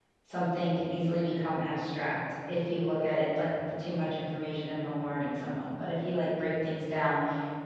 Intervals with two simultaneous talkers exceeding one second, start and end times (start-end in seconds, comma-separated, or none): none